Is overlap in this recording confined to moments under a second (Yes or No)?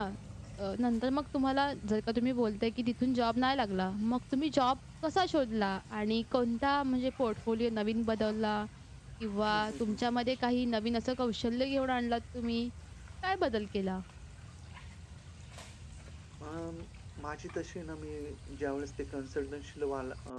Yes